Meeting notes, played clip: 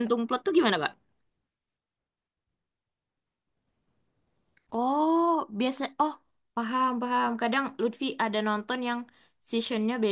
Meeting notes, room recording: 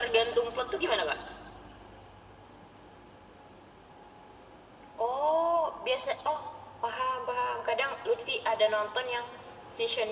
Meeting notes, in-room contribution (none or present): none